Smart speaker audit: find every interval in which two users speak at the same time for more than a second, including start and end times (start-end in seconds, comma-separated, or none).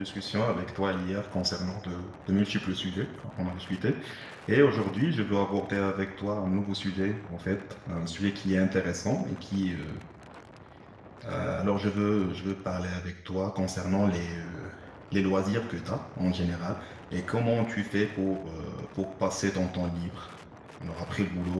none